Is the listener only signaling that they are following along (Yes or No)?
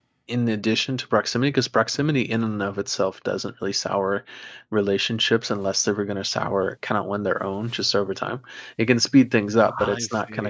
Yes